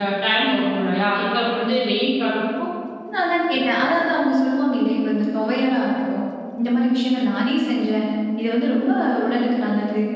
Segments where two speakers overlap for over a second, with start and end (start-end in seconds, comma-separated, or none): none